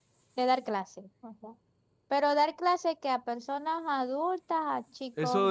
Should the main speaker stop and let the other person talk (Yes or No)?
Yes